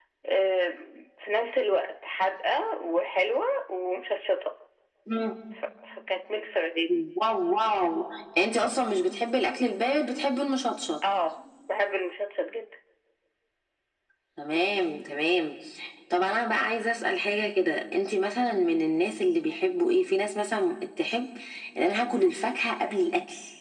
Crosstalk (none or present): none